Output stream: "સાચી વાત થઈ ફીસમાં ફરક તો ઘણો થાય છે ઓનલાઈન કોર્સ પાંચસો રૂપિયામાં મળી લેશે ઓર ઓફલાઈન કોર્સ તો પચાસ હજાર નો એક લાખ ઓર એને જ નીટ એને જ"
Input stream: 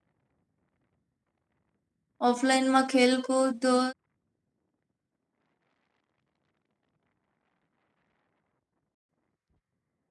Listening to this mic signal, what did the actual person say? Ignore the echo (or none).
ઓફલાઈનમાં ખેલકૂદ તો